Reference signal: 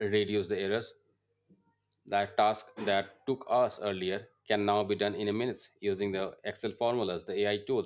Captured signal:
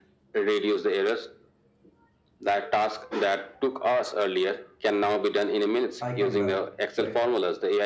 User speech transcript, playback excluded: I can learn, right?

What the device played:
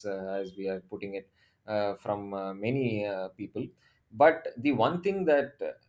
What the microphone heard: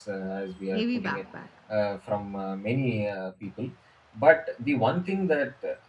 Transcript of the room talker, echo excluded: heavy backpack.

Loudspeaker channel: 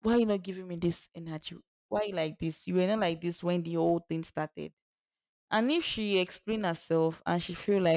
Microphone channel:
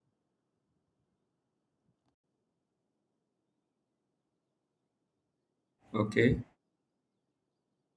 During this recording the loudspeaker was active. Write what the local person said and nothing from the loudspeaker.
okay.

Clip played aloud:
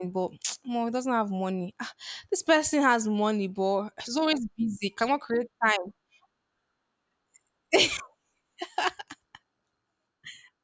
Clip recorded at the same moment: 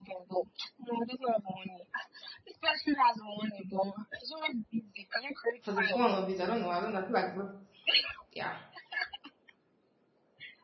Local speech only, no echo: for the fun of it. I don't know. I don't know. I feel like, just- yeah.

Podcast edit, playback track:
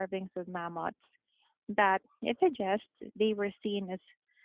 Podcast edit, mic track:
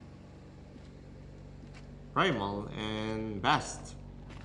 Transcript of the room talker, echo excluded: primal and vast.

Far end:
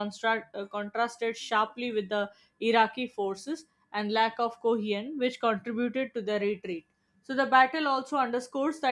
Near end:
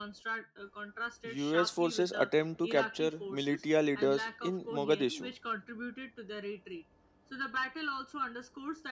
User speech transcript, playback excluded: us forces attempt to capture militia leaders in mogadishu

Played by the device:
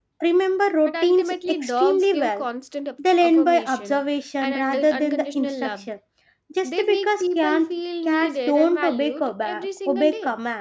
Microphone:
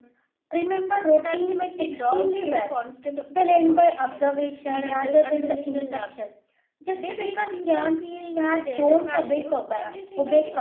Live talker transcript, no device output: none

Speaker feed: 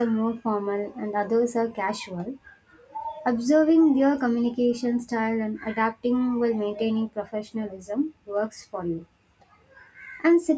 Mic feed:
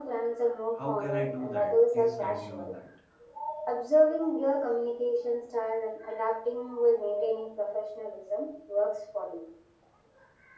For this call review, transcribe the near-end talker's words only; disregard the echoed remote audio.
How can I do that? Please guide me on that.

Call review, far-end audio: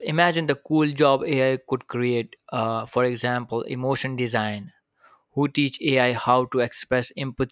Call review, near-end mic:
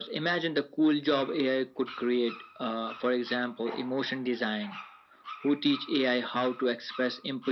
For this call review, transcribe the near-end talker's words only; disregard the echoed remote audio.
none

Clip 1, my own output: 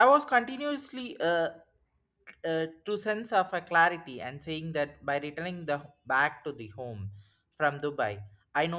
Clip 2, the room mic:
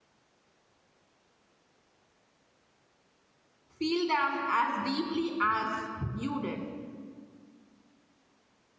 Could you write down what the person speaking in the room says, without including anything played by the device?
feel them as deeply as you did

